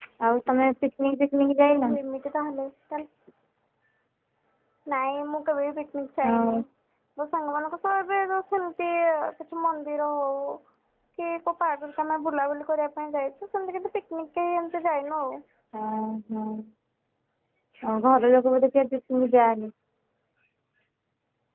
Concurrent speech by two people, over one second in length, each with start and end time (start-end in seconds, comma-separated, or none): none